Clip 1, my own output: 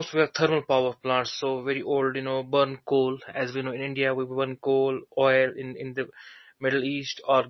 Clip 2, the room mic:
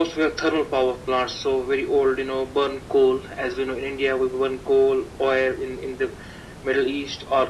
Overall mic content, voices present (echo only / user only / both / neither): echo only